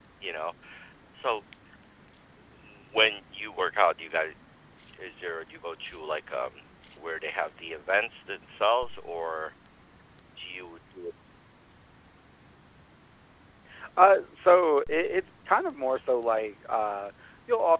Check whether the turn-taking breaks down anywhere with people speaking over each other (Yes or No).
No